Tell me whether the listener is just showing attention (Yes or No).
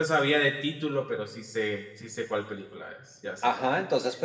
No